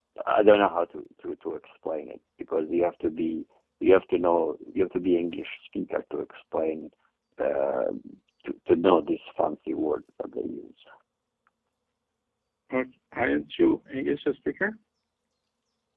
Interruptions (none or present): none